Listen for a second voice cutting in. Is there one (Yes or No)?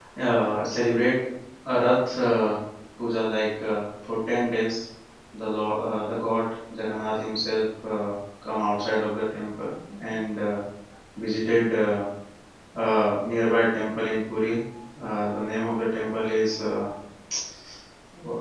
No